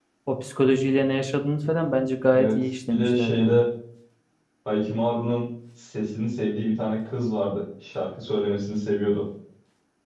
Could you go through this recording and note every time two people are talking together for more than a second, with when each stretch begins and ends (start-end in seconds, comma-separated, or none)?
2.3-3.6